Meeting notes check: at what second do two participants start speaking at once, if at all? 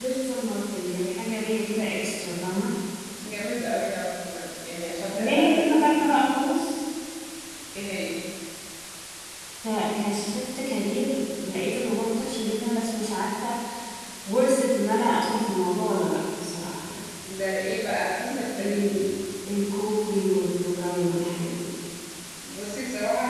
5.1 s

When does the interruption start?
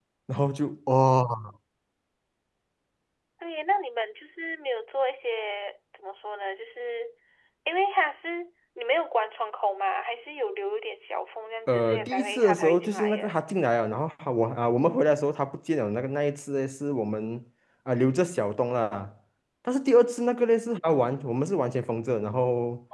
11.7 s

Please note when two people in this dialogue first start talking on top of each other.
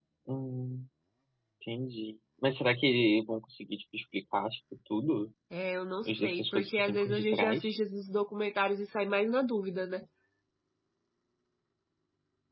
6.1 s

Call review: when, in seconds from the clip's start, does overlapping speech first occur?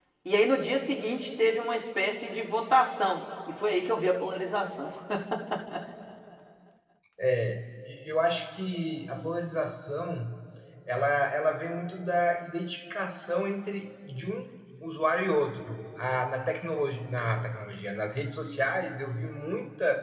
none

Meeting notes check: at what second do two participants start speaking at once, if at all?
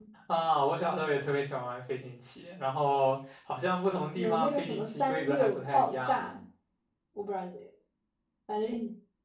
4.1 s

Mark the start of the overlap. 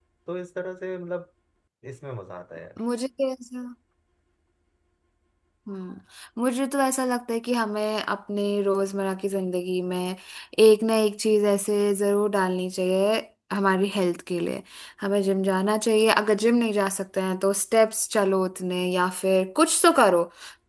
none

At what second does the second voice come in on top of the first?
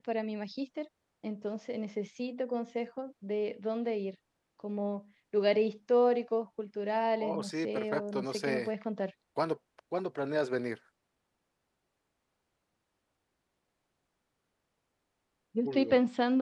7.2 s

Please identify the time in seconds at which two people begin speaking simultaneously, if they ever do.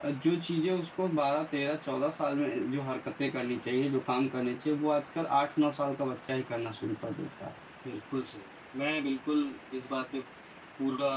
none

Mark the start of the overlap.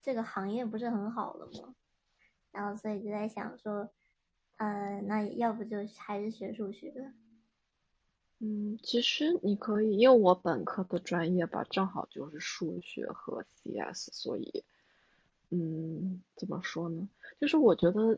none

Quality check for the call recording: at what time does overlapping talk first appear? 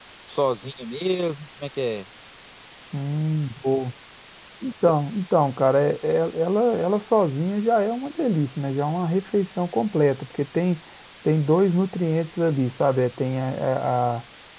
none

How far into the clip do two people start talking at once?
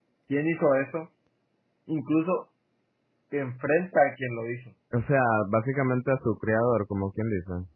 none

